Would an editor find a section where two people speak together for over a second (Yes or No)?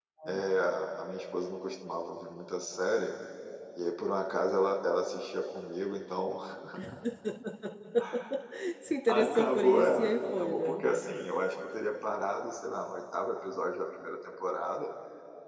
Yes